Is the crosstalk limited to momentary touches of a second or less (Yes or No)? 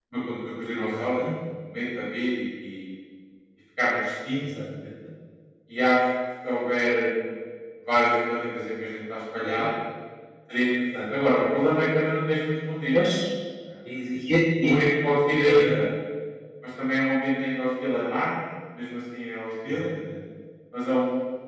Yes